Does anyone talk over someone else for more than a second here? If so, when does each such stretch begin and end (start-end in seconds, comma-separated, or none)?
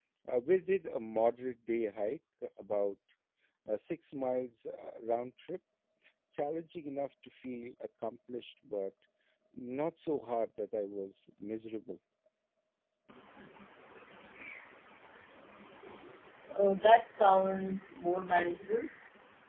none